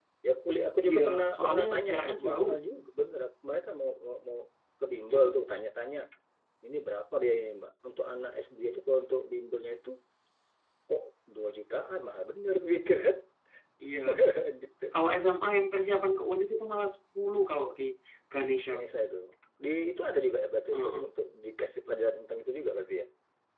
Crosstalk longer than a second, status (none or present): present